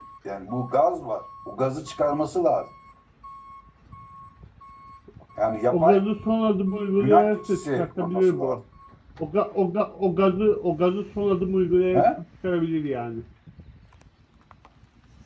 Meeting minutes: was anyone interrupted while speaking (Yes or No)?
Yes